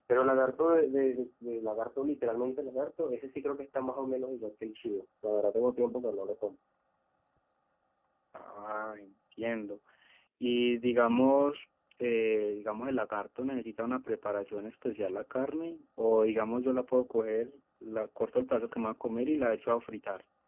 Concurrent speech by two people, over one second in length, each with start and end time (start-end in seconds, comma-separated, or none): none